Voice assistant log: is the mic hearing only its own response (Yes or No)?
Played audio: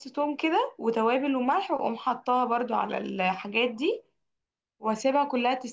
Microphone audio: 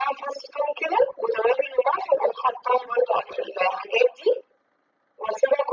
Yes